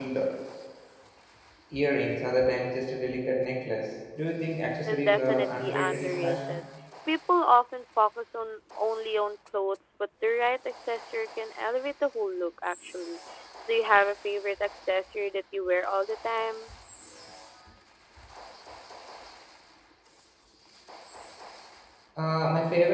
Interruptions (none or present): present